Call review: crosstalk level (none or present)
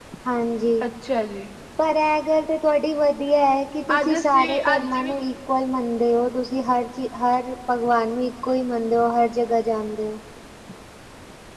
present